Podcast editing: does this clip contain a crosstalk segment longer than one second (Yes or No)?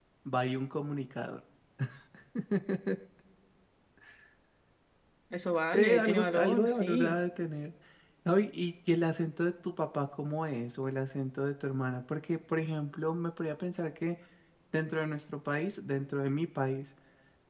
Yes